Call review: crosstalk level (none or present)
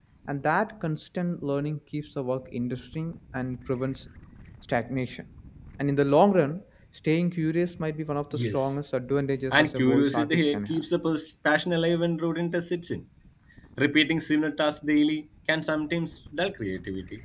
present